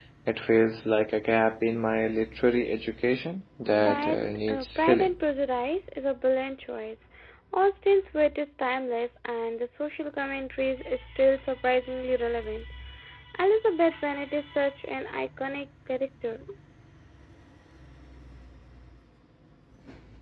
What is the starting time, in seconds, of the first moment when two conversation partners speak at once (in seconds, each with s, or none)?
3.7 s